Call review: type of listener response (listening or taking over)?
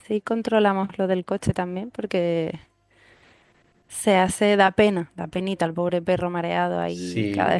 taking over